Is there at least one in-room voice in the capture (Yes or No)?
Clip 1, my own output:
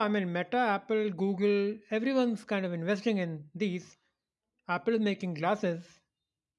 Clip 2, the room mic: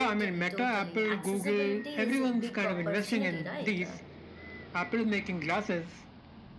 Yes